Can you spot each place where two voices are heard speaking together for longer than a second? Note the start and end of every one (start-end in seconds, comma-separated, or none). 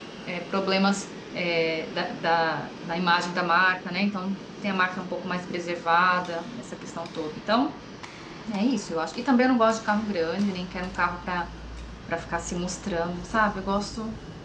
none